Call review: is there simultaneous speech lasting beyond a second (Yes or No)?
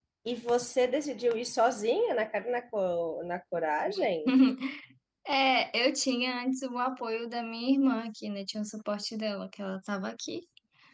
No